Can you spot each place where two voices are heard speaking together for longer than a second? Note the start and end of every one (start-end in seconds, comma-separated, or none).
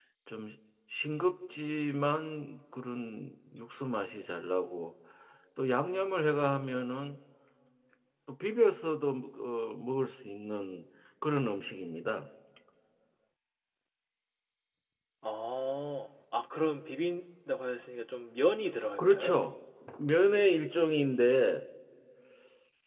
none